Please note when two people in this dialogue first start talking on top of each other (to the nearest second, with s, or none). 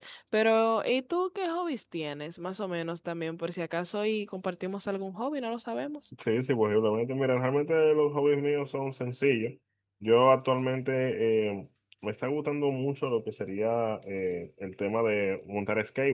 none